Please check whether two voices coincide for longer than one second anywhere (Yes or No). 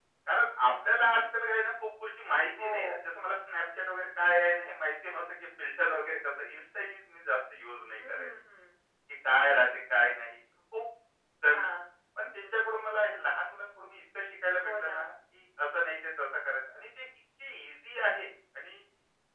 No